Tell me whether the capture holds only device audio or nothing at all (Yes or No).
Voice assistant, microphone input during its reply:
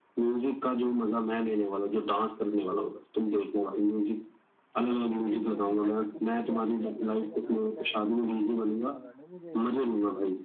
No